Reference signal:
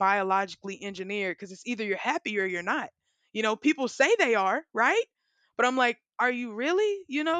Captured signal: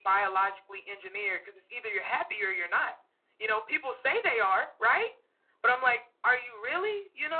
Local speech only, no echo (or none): none